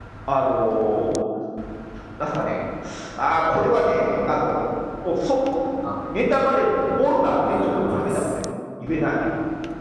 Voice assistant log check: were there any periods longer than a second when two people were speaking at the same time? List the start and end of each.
7.0-8.3

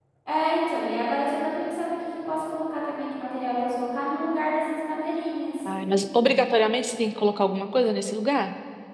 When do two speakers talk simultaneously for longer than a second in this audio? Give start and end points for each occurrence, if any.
none

